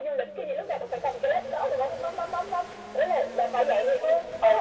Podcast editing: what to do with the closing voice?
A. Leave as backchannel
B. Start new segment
B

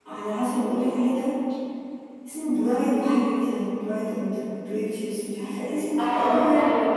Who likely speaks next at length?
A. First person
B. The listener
B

